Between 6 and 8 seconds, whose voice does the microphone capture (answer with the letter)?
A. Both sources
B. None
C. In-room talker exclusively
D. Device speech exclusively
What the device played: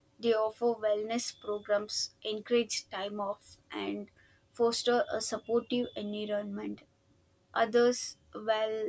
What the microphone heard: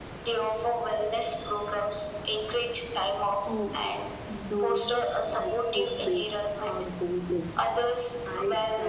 A